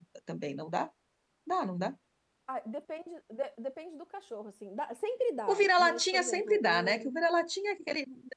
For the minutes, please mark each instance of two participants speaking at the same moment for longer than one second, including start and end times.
5.5-7.1

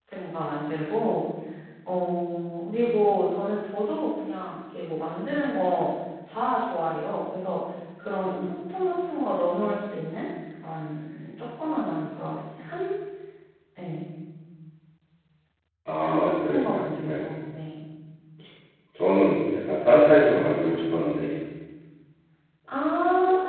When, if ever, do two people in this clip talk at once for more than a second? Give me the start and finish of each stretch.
16.0-17.3

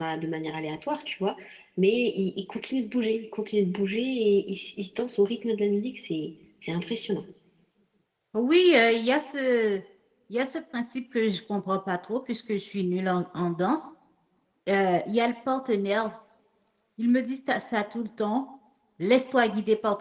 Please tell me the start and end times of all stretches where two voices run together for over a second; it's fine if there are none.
none

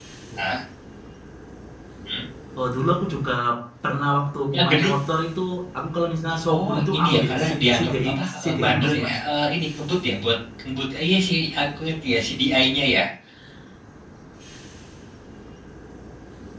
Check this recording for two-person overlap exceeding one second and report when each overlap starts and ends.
6.5-9.2

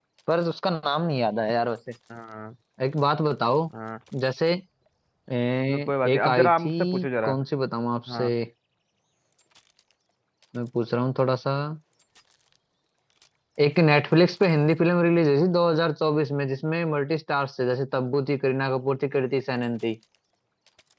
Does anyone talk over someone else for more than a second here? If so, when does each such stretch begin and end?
5.7-7.4

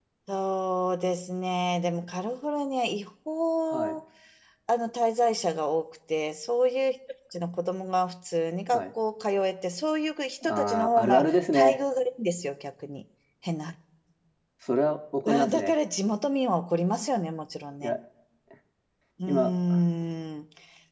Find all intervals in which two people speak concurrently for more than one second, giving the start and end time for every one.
10.4-11.8

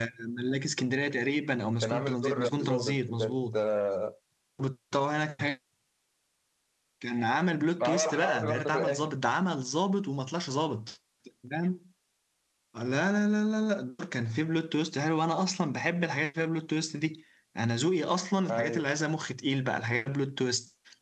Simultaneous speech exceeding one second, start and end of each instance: 1.8-3.5, 7.8-9.1

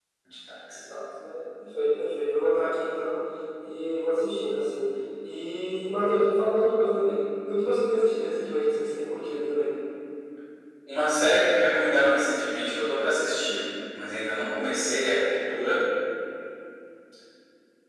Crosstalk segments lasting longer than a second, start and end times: none

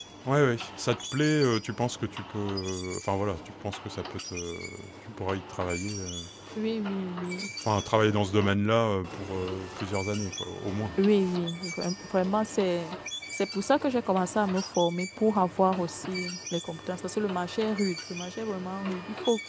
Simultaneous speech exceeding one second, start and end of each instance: none

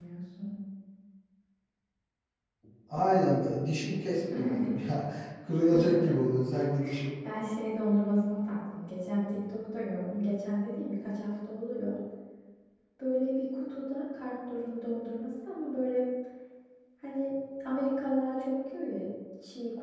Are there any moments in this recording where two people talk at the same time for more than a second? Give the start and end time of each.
none

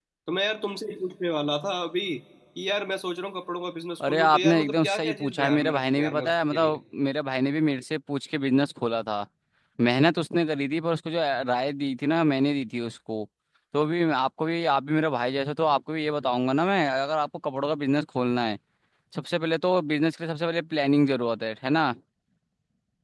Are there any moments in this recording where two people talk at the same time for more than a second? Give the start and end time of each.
4.0-6.8

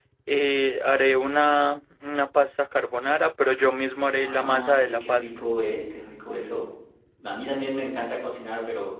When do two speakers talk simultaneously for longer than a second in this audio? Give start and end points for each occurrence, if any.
4.2-5.4

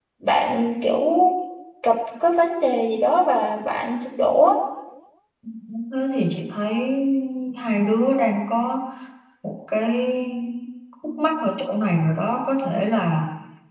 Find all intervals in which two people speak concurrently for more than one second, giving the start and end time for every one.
none

